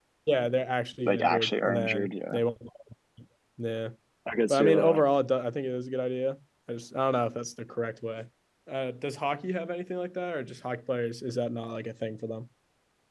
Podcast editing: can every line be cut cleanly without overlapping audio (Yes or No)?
No